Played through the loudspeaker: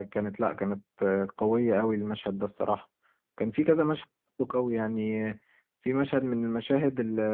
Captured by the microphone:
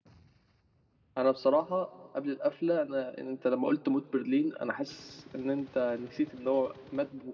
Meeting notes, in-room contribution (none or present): present